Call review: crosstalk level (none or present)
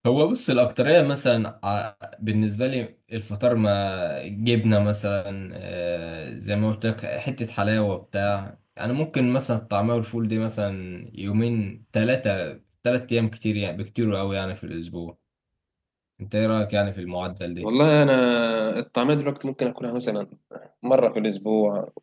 none